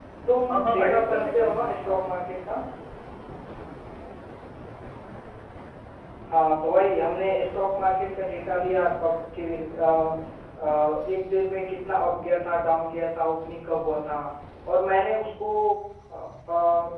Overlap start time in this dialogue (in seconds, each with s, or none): 0.5 s